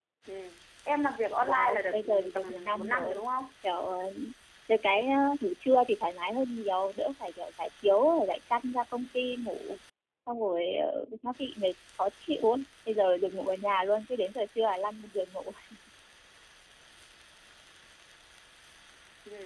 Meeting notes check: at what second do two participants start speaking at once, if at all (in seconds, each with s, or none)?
1.4 s